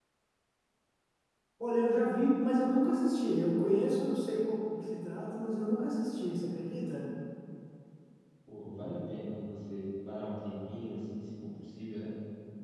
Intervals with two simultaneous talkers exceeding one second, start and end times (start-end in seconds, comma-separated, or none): none